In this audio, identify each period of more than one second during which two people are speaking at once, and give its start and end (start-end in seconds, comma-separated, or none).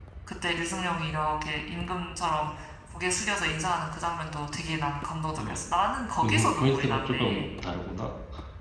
6.2-7.4